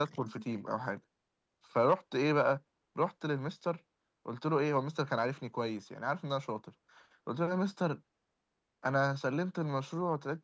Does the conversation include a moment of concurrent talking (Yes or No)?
No